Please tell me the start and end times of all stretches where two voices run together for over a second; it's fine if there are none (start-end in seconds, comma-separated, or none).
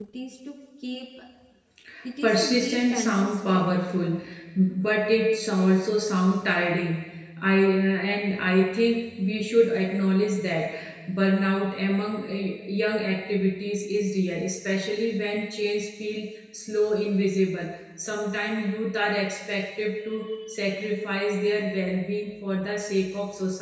2.2-3.7